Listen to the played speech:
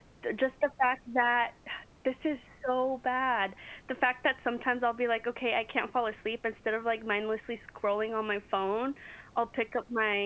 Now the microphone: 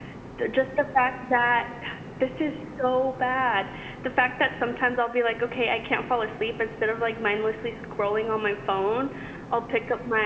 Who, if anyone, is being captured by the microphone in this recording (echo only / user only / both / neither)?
echo only